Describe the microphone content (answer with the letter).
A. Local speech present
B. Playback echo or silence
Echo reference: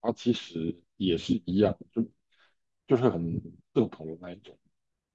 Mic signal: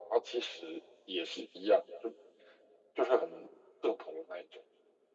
B